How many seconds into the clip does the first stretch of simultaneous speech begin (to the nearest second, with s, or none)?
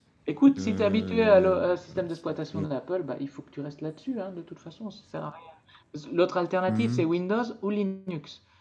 1 s